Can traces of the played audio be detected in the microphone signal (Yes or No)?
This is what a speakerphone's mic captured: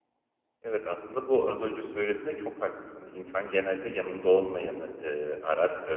No